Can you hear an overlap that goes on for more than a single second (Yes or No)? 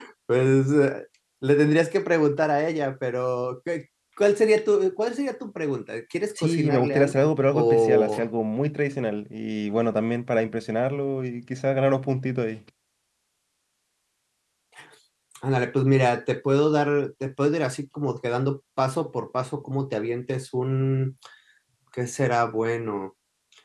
Yes